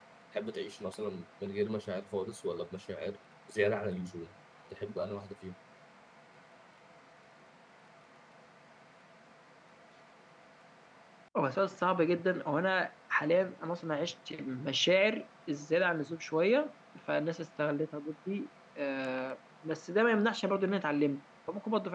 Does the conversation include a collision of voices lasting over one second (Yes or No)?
No